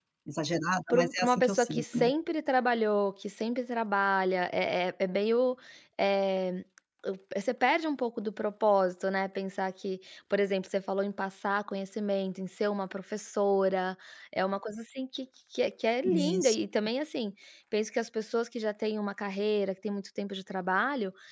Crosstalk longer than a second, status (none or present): present